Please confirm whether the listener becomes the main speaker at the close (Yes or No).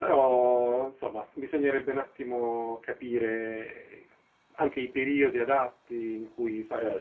Yes